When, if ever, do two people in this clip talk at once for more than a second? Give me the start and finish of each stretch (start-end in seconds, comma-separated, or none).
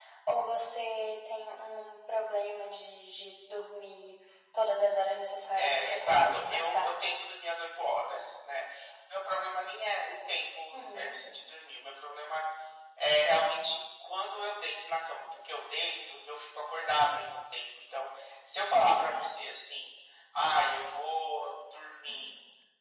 5.5-6.9